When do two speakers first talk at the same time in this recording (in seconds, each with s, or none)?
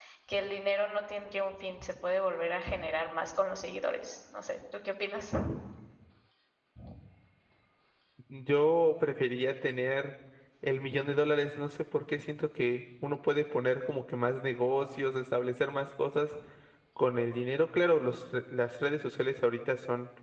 none